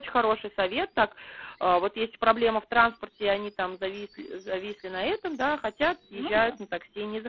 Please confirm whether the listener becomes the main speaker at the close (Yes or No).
No